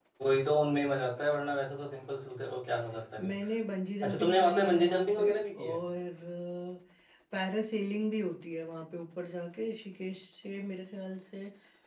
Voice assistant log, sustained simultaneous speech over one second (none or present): present